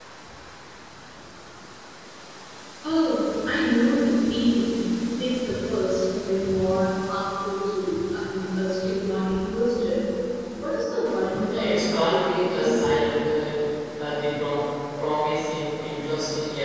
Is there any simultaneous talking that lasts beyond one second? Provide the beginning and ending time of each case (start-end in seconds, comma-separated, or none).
11.5-12.8